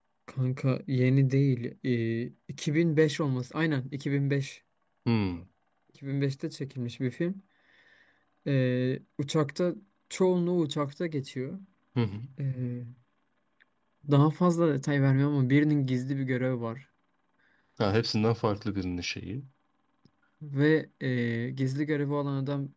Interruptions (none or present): none